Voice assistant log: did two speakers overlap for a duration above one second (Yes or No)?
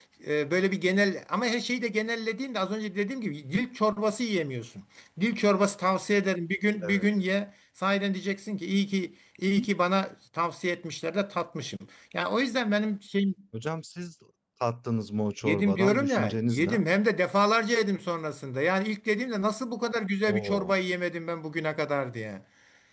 Yes